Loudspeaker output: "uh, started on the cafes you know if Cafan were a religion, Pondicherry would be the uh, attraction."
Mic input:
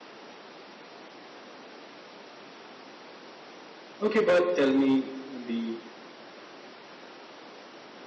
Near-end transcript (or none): Okay, but tell me the